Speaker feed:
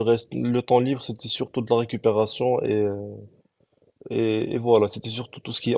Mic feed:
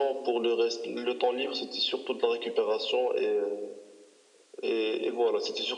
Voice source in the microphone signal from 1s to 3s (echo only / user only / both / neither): echo only